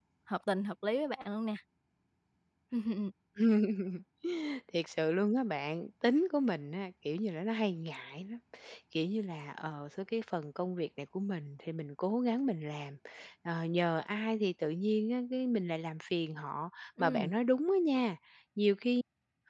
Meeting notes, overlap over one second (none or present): none